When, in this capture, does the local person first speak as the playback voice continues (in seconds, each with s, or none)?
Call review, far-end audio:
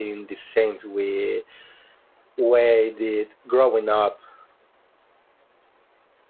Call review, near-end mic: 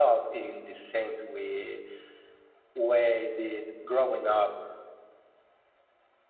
none